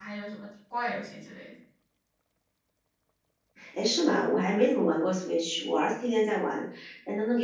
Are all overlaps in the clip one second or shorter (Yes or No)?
Yes